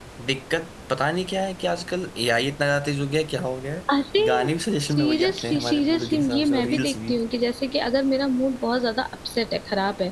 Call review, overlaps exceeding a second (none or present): present